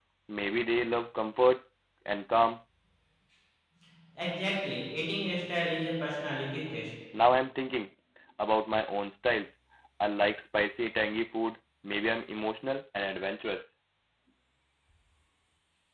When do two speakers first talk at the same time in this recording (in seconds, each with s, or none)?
none